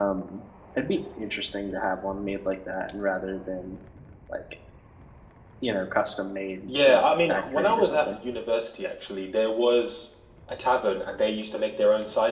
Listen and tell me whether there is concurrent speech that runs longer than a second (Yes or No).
Yes